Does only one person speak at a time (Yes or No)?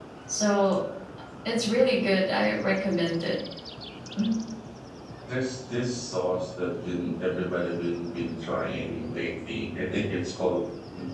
Yes